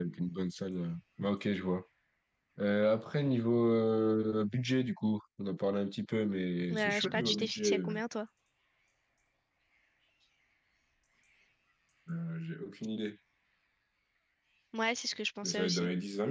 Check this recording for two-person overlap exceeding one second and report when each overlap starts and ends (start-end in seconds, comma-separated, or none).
6.7-8.0